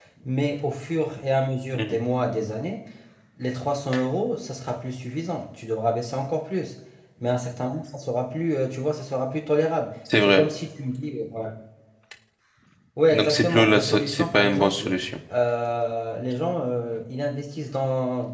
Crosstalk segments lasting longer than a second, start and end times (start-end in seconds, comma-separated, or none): 13.1-14.9